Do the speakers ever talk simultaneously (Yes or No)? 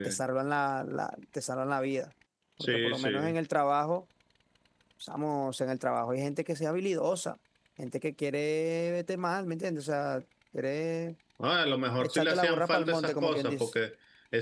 Yes